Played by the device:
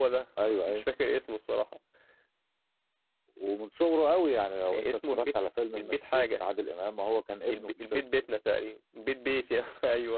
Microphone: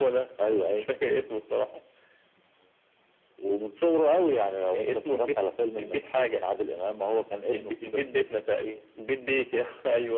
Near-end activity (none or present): none